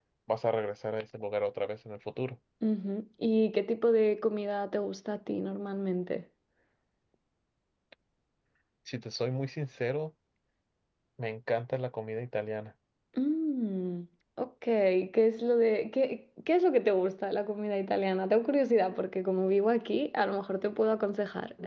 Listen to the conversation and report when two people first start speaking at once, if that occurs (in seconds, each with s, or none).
none